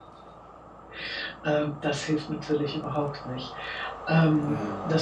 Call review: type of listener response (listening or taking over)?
listening